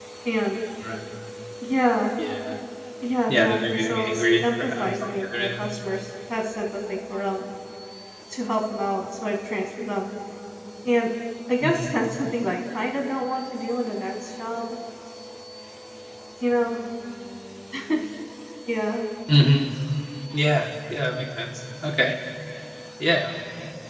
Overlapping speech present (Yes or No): Yes